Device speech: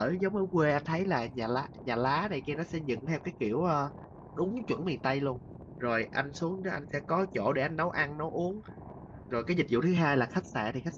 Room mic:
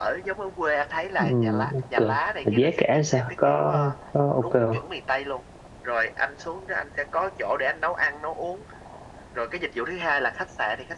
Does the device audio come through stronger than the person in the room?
No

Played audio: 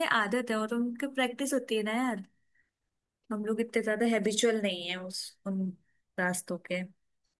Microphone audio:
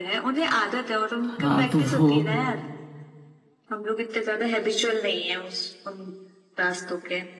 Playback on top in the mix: No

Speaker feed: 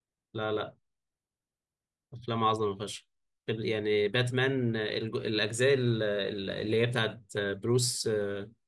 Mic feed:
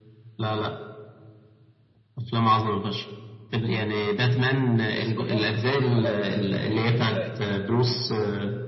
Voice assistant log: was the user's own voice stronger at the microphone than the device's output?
No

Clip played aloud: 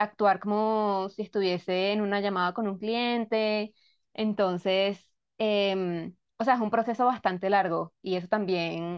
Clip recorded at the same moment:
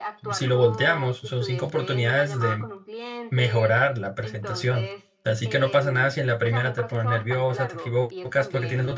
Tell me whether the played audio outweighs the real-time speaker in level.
No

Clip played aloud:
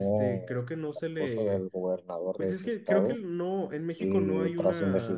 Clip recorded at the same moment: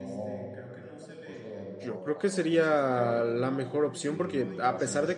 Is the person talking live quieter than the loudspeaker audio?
No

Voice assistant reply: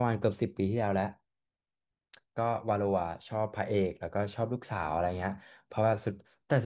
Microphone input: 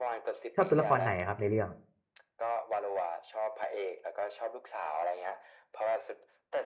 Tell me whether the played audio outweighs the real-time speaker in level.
No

